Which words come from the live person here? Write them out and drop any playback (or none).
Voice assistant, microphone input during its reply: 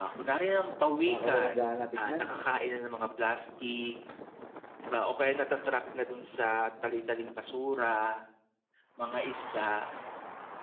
Nakakawalang-gana tignan.